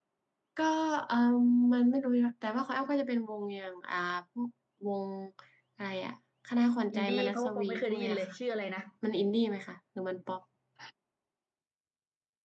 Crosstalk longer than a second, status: present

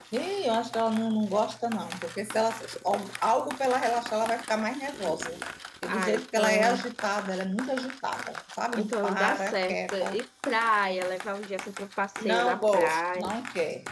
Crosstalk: present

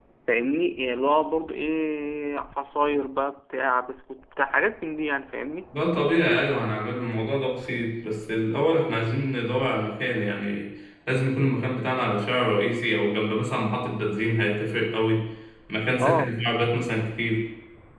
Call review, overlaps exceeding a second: none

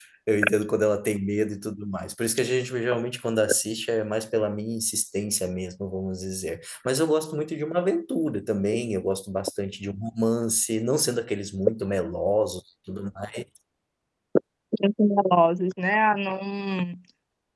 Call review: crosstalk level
none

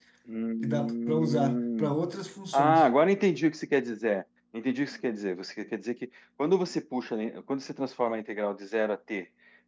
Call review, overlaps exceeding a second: present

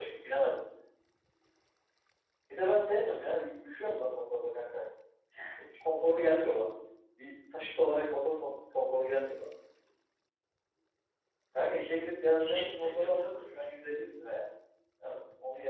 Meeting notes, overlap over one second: present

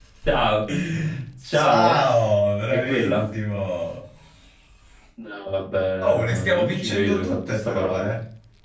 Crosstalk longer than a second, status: present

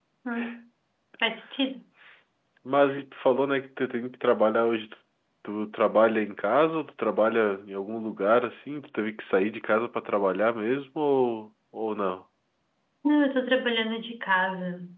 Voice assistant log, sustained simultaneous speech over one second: none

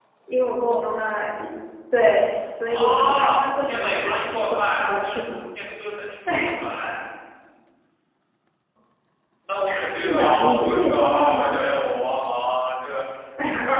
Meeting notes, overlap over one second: present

